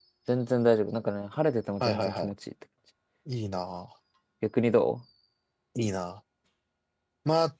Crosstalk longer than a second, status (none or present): none